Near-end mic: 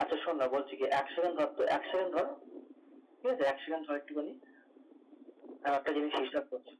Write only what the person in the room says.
none

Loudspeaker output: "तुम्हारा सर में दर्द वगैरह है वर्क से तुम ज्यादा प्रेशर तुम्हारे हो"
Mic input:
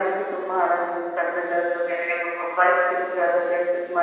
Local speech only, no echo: none

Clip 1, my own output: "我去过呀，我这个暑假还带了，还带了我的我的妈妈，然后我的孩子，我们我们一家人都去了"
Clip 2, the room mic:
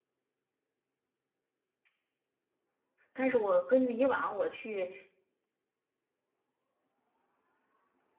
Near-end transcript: 但是我根据以往我去

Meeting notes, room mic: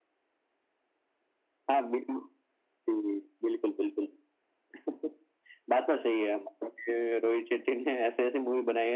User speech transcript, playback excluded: none

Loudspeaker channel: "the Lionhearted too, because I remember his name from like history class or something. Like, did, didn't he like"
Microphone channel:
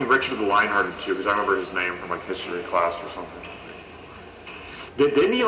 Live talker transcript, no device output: none

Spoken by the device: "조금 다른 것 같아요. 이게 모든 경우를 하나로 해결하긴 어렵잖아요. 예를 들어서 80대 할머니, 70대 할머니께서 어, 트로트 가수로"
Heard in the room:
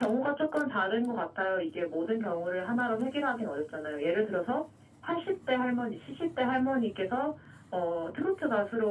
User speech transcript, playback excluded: none

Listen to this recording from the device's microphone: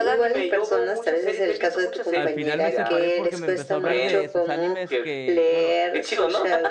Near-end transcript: Al final me separé porque me empezó a hablar de sus animes que, bueno,

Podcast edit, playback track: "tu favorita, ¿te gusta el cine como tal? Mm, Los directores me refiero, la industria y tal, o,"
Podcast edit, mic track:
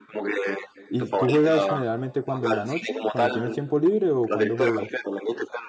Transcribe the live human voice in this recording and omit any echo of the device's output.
¿y tú juegas generalmente cuando en la noche, cuando tienes tiempo libre o cuando juegas?

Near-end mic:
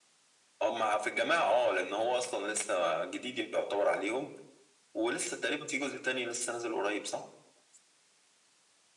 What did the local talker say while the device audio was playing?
none

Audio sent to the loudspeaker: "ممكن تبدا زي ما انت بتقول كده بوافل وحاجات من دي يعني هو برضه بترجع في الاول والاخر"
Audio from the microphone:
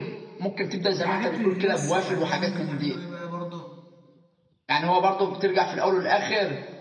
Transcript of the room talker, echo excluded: الحاجات اللي لس يعني بقى ممكن نعمله ايه بقى برضه

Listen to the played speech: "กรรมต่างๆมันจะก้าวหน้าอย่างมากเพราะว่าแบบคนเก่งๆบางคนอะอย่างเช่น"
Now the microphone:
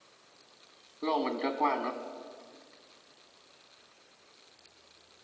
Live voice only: โลกมันก็กว้างเนาะ

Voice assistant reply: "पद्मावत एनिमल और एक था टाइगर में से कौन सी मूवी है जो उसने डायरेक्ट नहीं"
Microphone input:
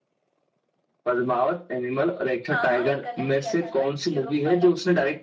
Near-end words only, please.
हाँ हाँ एक गलत दिया था ना यूरोप वाला

